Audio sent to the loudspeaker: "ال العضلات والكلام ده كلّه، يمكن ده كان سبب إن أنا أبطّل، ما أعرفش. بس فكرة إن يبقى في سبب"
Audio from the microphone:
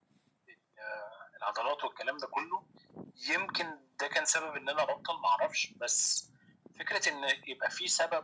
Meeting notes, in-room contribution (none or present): none